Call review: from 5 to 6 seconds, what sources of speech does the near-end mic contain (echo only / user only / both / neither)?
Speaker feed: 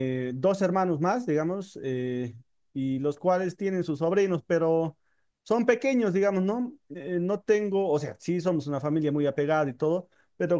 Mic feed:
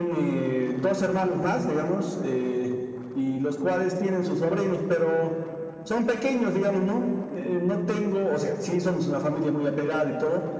echo only